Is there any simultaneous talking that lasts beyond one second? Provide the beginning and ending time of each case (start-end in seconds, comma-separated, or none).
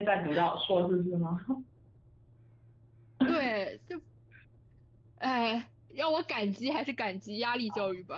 none